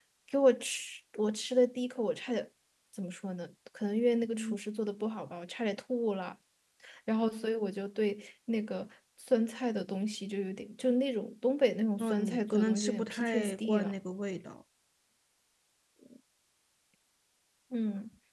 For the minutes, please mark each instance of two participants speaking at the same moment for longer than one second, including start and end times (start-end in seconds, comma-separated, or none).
12.0-13.9